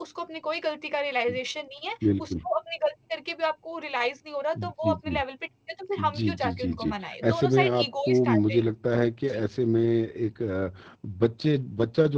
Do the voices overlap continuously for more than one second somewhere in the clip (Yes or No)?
Yes